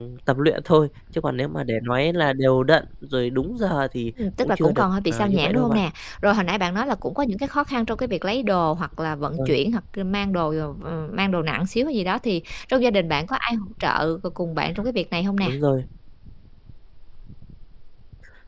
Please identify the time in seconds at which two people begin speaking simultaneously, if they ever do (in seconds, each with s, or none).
4.2 s